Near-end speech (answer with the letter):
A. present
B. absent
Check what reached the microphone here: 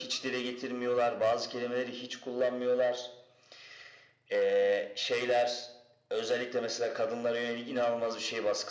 B